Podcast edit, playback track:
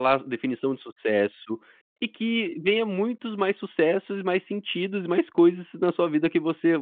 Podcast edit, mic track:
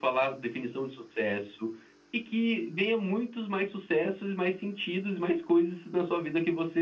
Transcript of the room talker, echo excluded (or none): none